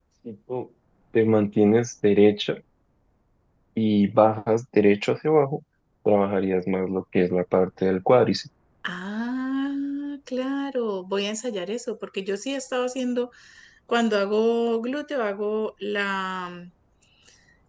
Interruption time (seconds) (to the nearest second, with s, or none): none